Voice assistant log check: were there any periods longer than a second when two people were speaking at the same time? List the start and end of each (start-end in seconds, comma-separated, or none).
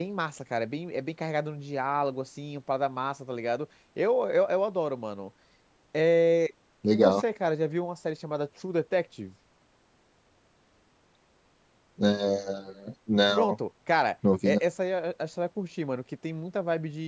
none